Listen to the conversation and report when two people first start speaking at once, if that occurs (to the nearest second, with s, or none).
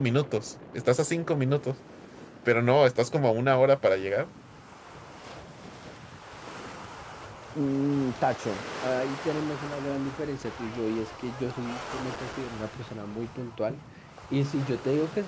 none